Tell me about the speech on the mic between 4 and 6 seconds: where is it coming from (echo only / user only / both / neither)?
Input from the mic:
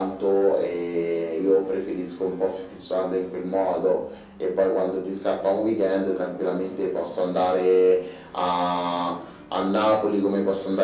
echo only